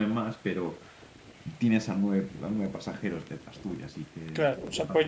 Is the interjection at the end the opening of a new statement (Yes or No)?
Yes